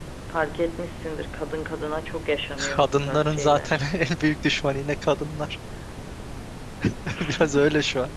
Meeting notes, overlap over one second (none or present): present